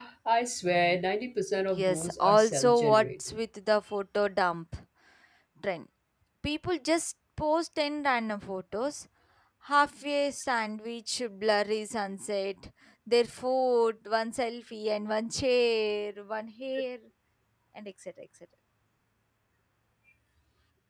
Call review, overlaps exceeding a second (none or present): present